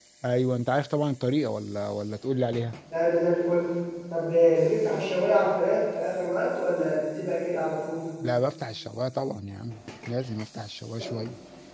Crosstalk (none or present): none